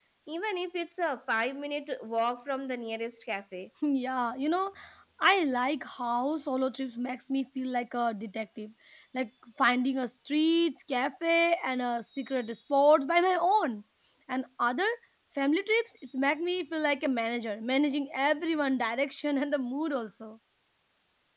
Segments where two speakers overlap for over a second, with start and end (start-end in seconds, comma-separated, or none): none